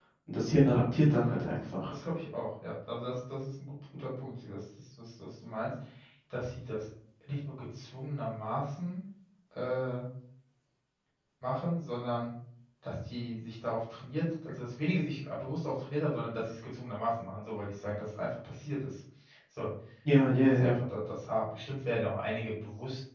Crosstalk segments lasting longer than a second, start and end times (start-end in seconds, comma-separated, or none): none